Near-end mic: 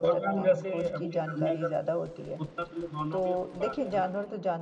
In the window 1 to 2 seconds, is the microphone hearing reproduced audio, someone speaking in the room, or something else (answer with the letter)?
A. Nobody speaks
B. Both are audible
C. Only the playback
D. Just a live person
C